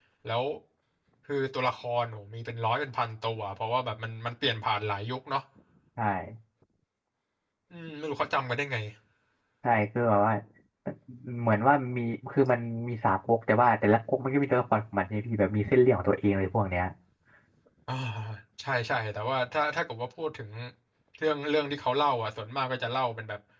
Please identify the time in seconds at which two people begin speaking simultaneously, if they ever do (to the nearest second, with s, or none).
none